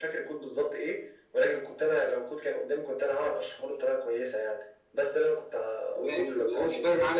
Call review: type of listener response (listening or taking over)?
taking over